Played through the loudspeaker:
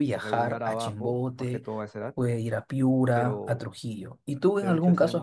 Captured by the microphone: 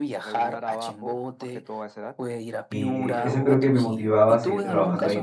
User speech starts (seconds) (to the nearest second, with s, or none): 3 s